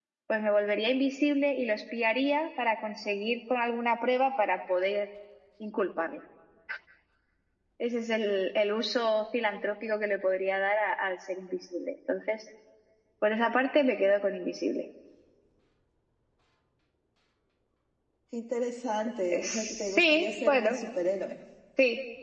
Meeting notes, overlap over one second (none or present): present